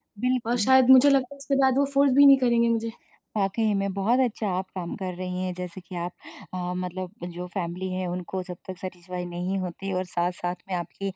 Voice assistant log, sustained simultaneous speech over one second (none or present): none